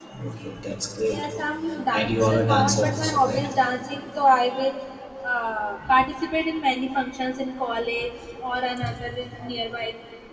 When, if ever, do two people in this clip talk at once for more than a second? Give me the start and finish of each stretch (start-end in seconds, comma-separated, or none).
1.9-3.5